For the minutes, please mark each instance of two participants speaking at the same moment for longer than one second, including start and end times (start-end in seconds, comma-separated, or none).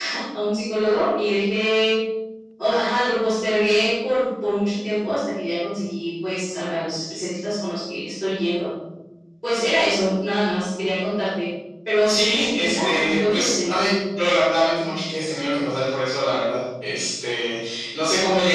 12.1-13.7